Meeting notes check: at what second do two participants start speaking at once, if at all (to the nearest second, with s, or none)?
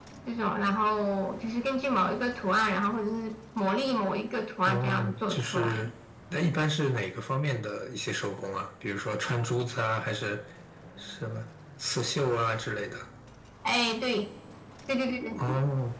5 s